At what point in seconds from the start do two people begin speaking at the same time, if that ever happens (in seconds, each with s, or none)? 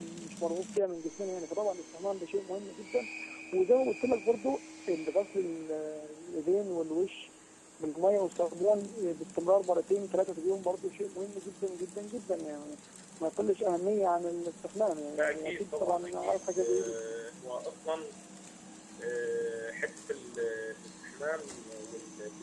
15.2 s